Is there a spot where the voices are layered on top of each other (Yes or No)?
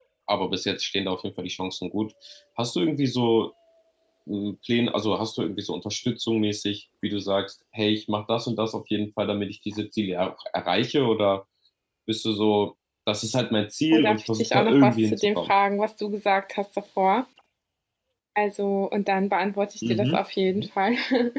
Yes